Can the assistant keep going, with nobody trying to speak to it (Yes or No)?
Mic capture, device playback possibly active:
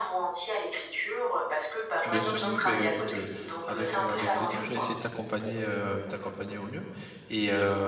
No